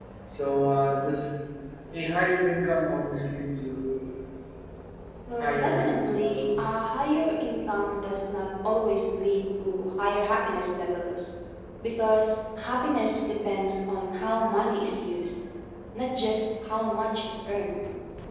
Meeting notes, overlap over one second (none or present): present